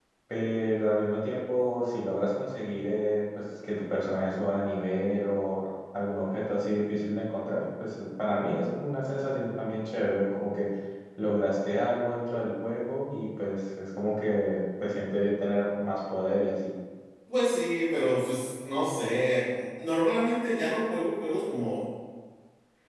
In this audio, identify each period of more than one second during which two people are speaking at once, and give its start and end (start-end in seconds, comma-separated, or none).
none